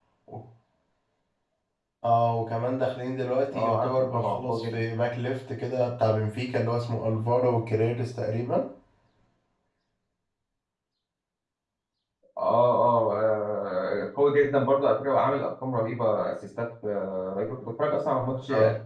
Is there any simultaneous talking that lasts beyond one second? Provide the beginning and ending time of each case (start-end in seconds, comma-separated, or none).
3.5-4.8